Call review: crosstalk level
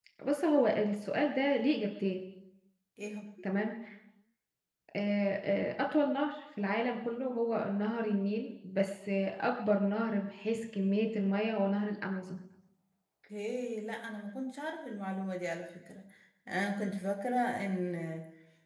none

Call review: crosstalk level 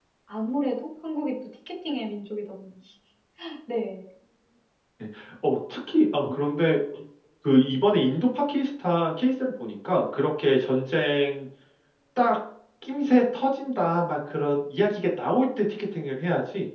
none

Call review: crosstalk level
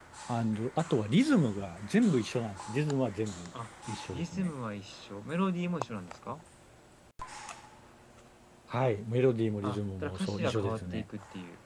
present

